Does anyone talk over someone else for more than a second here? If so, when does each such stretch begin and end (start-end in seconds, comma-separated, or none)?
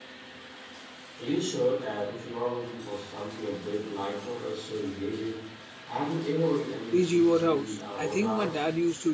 6.9-8.6